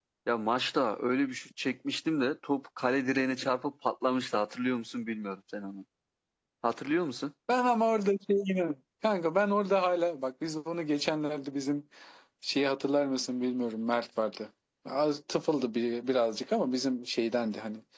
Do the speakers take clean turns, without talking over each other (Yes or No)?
Yes